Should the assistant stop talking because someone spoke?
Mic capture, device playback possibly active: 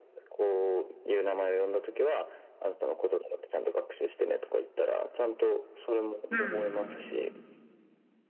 Yes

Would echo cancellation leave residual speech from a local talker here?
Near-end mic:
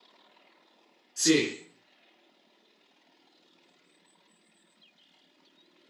Yes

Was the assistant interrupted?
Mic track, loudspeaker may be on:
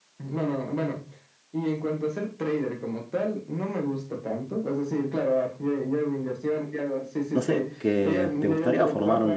Yes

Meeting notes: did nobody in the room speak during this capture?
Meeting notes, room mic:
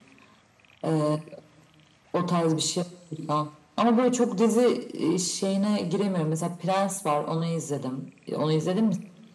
Yes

